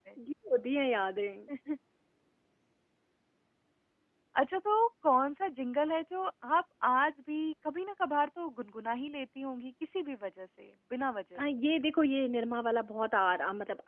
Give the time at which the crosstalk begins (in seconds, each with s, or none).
none